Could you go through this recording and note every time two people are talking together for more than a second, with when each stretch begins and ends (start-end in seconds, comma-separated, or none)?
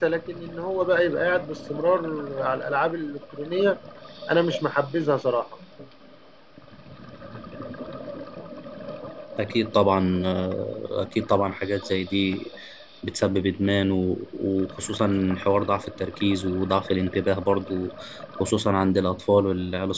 none